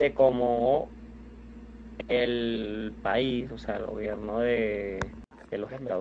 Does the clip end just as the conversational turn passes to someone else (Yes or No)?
No